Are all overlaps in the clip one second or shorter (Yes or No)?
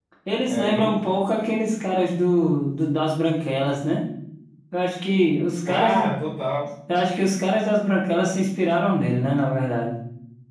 Yes